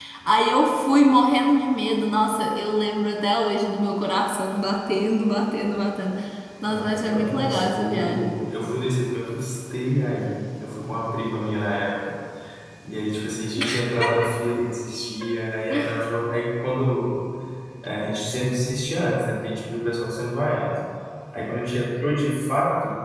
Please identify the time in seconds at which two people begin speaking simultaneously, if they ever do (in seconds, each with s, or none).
6.6 s